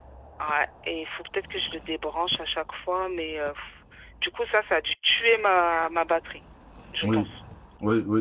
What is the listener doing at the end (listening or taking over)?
taking over